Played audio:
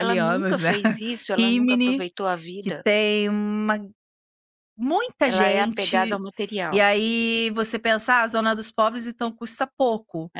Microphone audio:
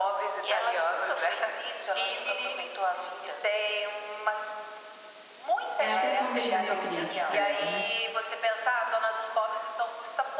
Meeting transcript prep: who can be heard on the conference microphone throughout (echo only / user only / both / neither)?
both